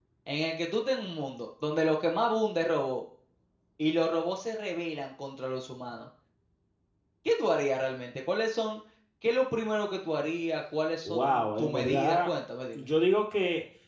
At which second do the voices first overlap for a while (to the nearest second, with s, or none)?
11 s